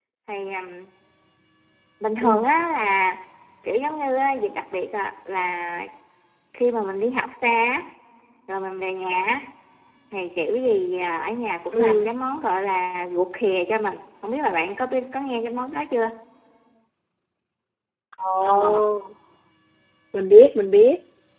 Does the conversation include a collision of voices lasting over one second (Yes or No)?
No